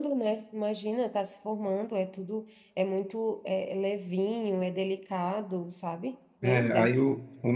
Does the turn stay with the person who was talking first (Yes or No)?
No